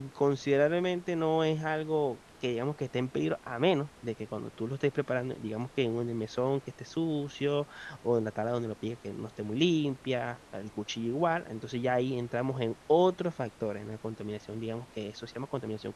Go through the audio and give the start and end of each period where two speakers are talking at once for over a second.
none

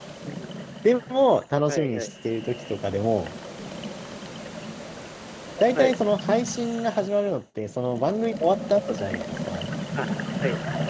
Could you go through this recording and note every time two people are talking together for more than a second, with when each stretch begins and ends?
none

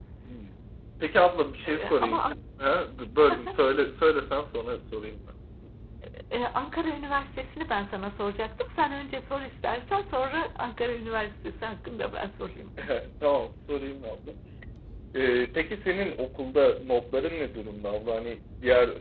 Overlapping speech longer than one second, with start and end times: none

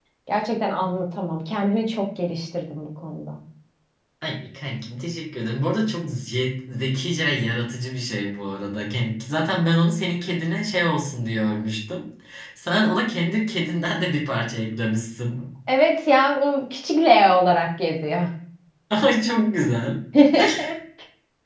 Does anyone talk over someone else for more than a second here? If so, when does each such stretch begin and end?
none

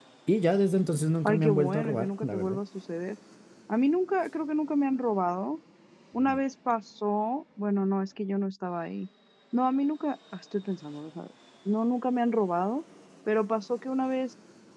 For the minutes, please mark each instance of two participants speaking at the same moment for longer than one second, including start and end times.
1.2-2.6

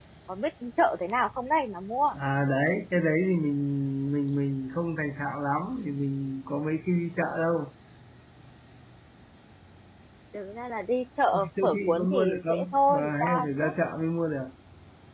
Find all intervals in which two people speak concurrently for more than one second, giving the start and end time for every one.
11.3-13.7

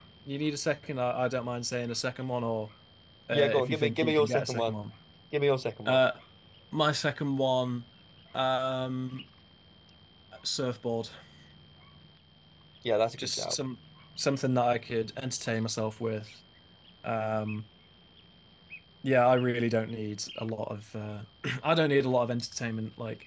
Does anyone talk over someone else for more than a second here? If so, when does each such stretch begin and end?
3.3-4.8

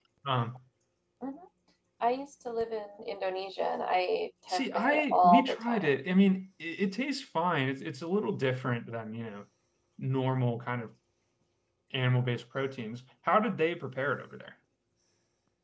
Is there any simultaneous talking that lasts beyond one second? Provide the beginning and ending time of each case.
4.5-6.0

